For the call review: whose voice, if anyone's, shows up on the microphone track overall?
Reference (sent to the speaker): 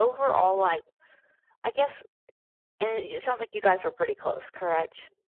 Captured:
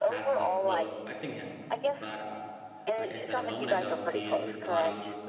both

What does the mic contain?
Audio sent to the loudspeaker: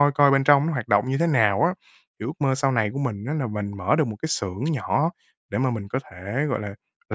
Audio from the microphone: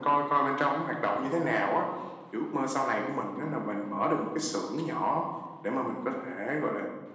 echo only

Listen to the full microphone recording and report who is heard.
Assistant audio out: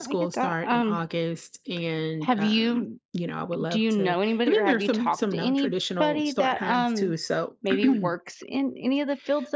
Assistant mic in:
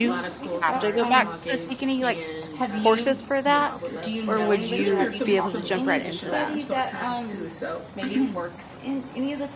both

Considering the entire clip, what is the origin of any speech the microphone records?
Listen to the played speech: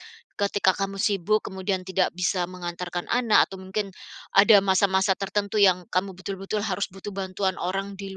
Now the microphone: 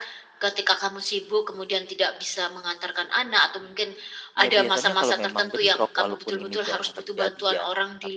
both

